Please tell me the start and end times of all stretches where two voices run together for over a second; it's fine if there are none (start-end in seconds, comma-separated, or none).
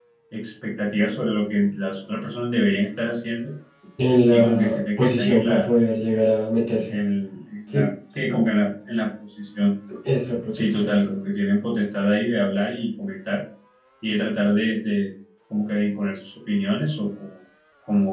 4.3-5.7